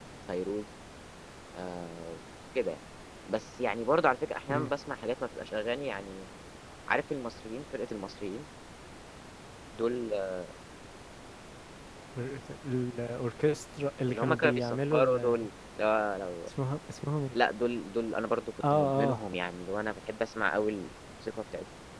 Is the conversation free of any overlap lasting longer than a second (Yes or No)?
No